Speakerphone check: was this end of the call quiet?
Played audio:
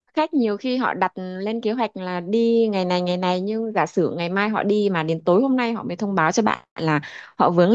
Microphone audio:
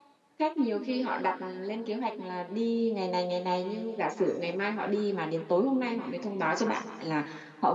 Yes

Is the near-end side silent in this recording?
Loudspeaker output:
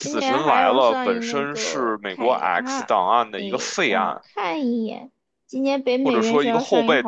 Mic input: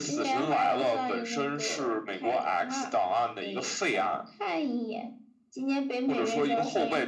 Yes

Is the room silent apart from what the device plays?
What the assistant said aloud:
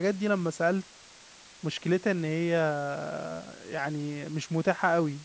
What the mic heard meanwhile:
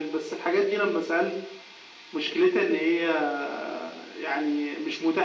Yes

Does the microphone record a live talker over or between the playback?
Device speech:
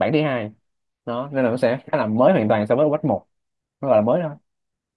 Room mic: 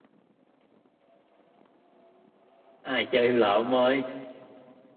Yes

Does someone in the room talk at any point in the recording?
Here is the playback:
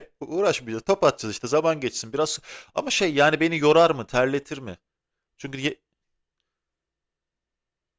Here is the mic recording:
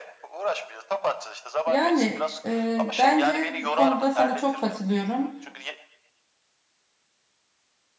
Yes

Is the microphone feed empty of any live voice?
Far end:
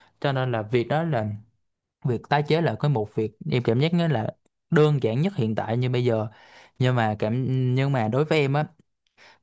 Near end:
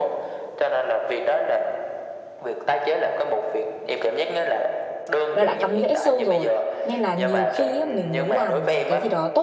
No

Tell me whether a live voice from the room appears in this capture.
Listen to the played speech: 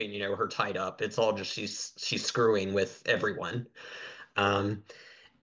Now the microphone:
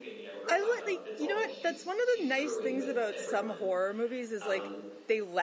Yes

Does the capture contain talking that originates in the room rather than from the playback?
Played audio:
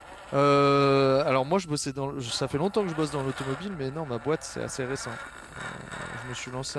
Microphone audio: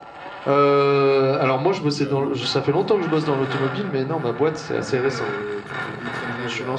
Yes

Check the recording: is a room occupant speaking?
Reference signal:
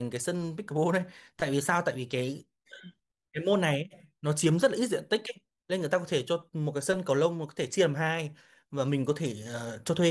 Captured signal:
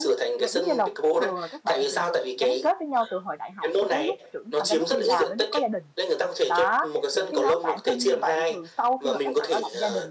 Yes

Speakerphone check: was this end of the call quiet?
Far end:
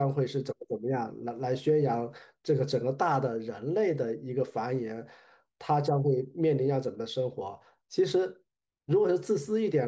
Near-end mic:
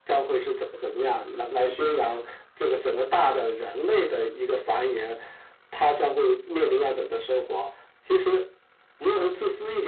Yes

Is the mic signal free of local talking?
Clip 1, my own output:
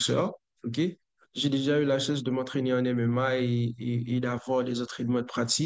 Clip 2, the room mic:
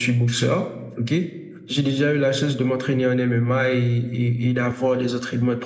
Yes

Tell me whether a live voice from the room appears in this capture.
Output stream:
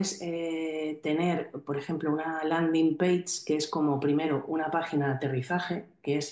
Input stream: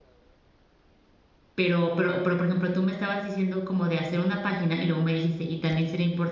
Yes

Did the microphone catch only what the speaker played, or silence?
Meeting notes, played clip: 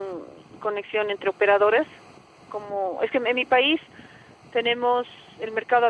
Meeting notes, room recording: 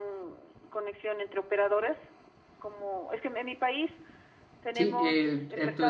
No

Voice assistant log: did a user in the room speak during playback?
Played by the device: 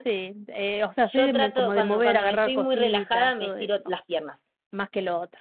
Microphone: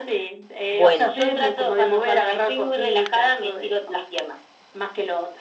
Yes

